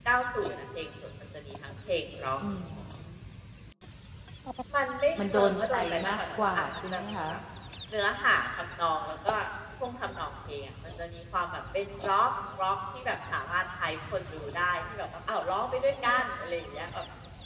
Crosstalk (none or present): present